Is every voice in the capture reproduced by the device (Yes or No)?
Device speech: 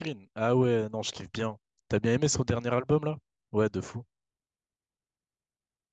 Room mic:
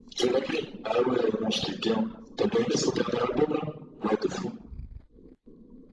Yes